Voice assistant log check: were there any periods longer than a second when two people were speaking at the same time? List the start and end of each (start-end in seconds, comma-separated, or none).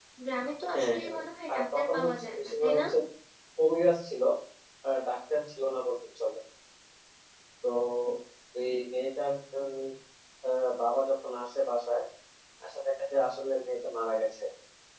0.7-2.8